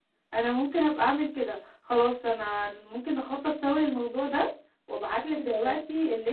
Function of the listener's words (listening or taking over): listening